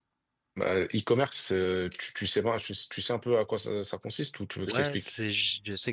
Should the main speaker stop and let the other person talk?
Yes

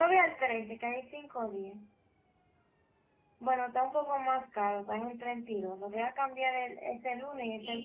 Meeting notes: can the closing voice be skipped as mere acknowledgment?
No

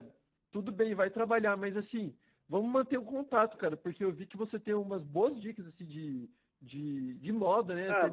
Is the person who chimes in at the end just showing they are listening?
Yes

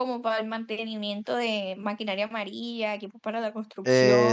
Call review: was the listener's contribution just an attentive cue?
No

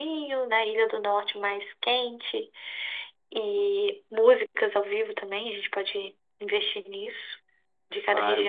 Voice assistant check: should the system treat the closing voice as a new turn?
Yes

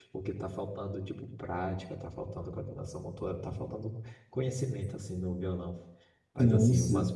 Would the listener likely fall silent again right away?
Yes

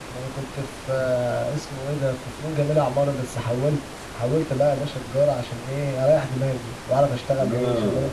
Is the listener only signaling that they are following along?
No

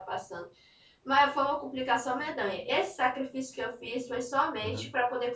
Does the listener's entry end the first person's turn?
No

